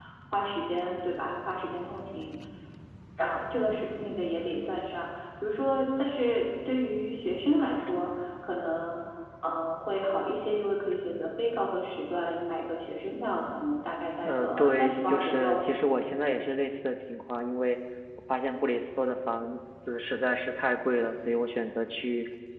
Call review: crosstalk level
present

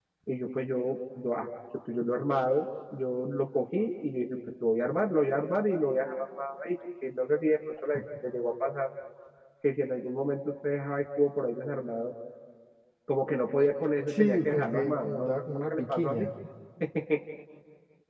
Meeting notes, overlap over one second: present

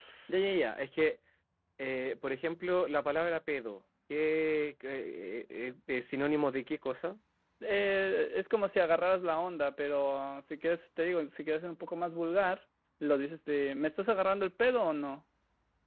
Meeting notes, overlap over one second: none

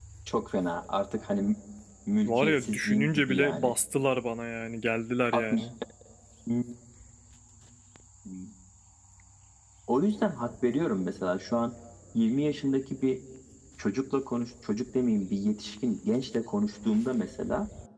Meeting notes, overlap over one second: present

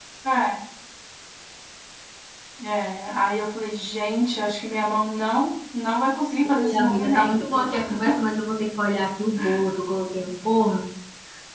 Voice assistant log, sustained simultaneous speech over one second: present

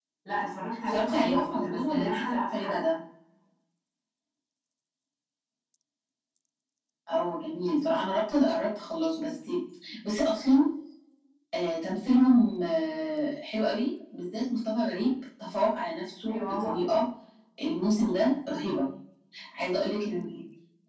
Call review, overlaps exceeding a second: present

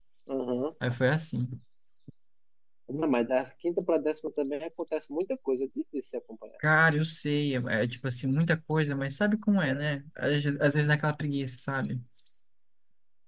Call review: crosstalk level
none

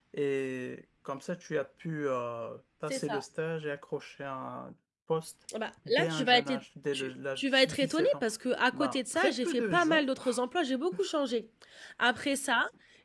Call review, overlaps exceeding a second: present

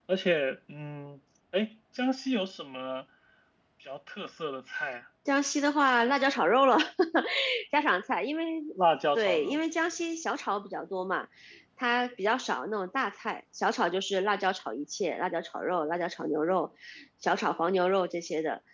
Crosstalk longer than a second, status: none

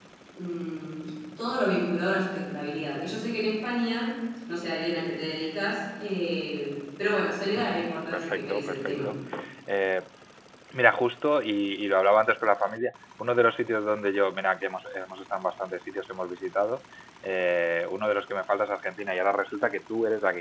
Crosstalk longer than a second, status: present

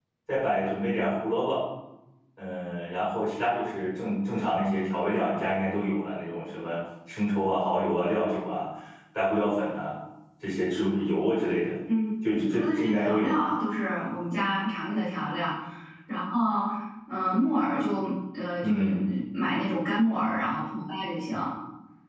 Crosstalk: present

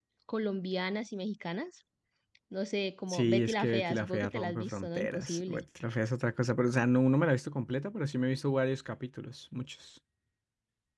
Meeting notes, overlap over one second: present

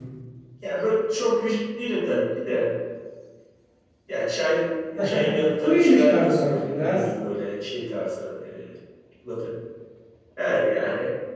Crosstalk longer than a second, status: present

